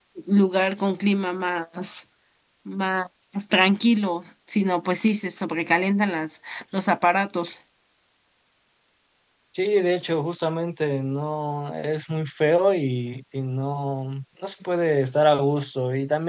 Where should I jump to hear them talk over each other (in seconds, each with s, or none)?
none